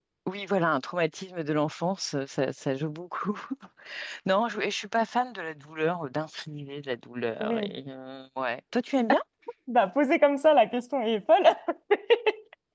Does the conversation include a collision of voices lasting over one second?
No

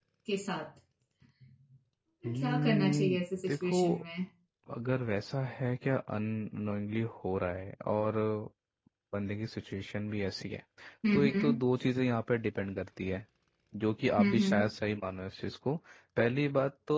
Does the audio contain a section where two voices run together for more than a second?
Yes, from 2.3 s

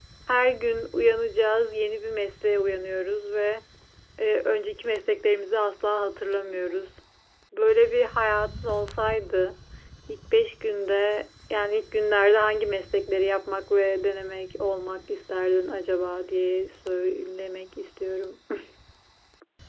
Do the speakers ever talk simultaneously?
No

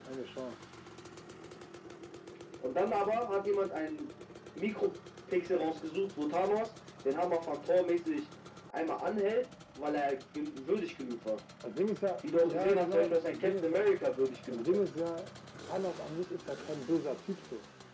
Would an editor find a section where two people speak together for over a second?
Yes, from 12.4 s

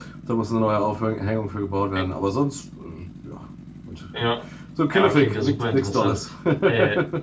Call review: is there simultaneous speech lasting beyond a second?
Yes, from 4.9 s

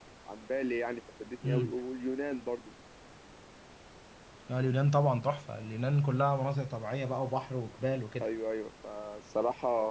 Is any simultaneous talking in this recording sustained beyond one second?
No

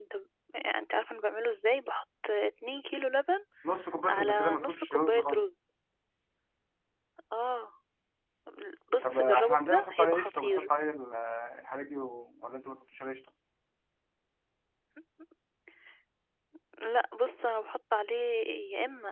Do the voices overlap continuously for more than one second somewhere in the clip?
Yes, from 4.1 s

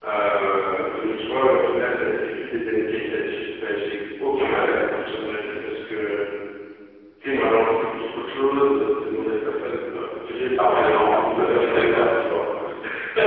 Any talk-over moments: Yes, from 10.6 s

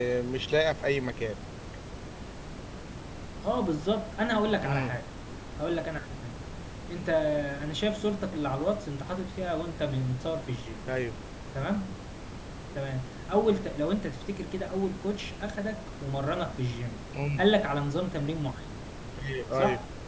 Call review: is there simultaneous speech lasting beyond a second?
No

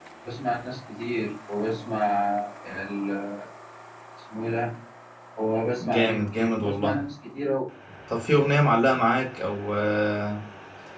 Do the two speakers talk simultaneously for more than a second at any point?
Yes, from 5.8 s

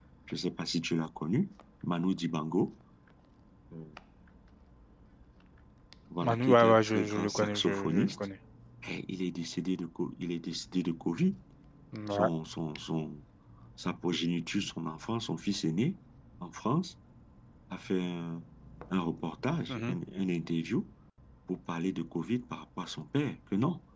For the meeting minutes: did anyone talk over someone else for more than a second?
Yes, from 6.2 s

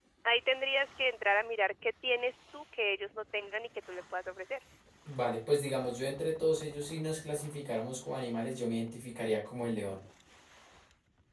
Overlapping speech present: No

